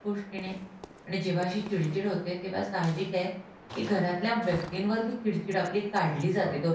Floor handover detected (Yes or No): Yes